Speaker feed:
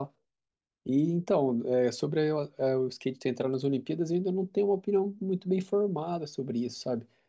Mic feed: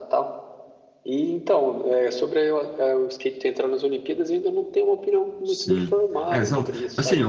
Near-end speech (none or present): present